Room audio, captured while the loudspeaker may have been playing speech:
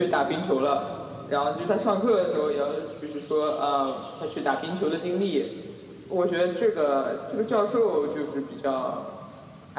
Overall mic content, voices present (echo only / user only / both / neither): echo only